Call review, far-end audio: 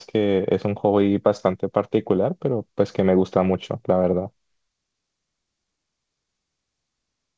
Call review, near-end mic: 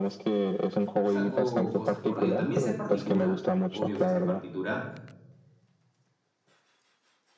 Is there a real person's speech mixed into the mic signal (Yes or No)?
Yes